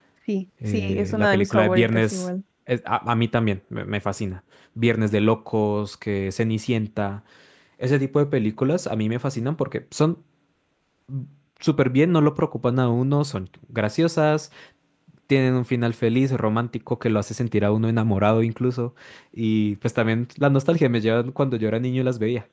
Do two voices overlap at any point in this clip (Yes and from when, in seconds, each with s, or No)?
Yes, from 0.7 s